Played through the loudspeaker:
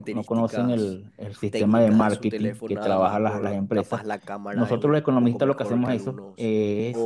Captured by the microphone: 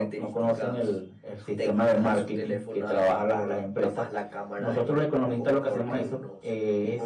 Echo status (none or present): present